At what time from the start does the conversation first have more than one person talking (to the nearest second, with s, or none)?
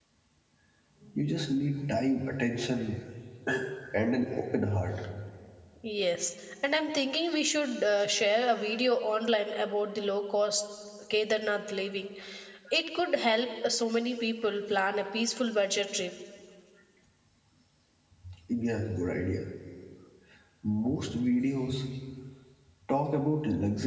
none